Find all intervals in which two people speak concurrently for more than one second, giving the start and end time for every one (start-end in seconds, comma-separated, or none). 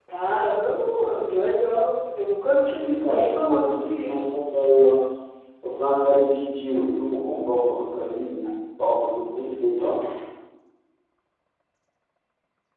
2.8-4.2